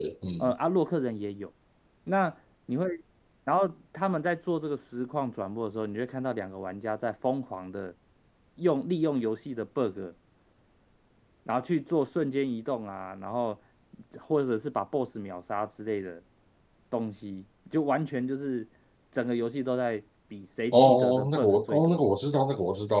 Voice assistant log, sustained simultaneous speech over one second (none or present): present